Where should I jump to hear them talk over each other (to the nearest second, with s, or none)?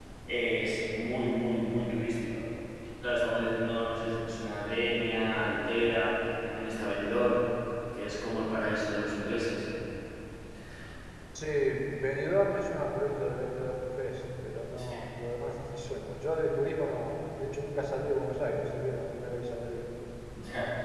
none